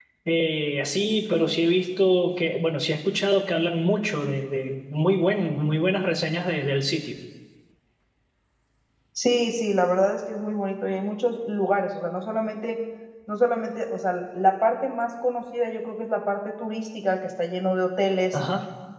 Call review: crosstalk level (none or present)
none